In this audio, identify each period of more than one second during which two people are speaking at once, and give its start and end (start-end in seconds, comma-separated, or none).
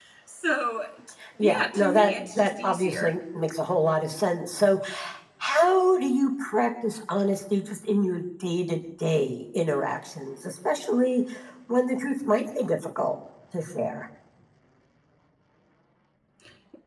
1.4-3.2